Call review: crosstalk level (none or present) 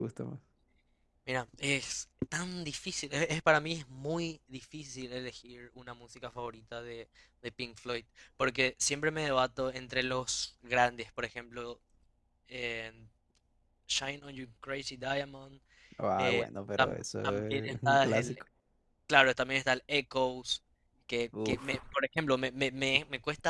present